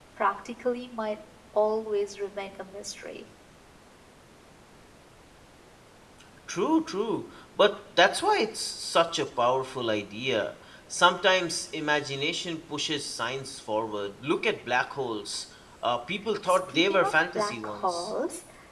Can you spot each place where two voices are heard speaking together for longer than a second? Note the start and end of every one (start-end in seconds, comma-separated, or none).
16.5-18.1